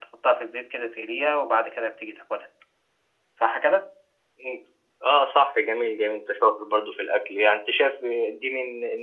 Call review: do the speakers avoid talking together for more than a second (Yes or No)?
Yes